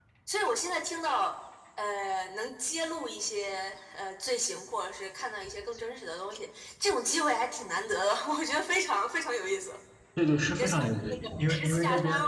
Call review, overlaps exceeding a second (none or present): present